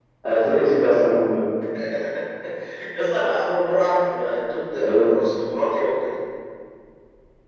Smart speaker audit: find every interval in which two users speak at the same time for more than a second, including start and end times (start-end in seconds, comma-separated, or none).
none